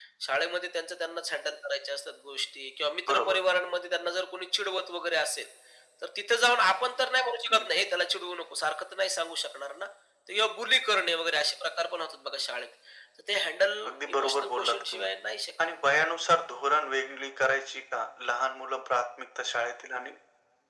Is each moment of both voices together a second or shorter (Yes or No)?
No